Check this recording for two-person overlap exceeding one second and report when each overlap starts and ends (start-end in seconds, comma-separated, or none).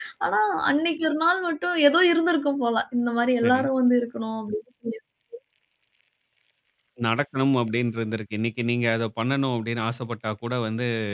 none